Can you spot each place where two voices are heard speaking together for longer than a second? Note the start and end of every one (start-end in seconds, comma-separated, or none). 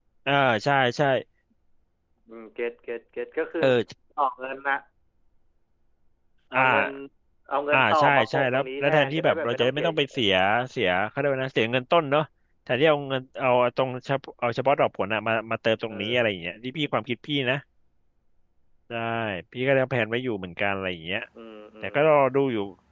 7.7-10.1